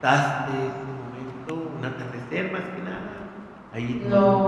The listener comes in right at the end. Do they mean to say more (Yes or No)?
Yes